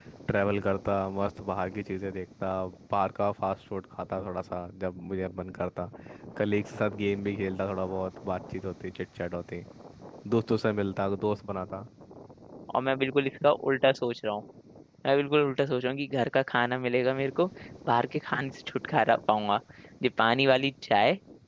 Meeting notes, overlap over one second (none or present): none